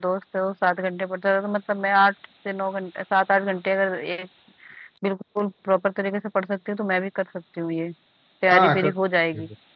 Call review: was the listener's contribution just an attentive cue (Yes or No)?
No